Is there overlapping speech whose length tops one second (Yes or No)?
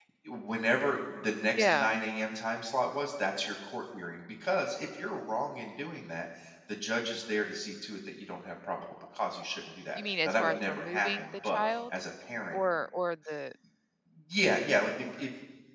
Yes